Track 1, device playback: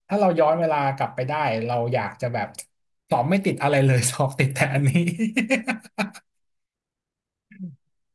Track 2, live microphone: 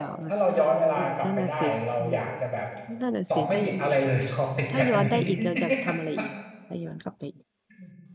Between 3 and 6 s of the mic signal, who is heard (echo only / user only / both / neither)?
both